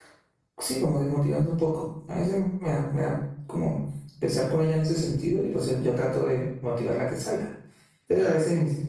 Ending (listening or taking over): listening